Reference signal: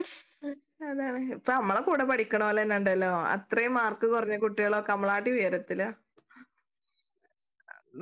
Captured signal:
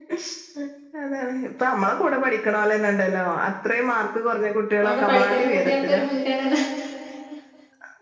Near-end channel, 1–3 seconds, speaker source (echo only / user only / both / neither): echo only